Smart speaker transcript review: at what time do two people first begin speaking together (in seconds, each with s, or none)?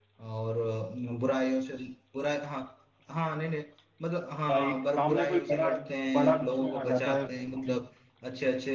4.5 s